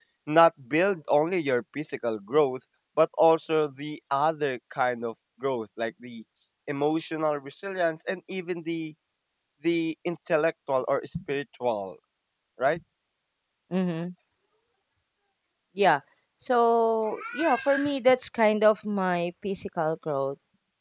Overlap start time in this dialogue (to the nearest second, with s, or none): none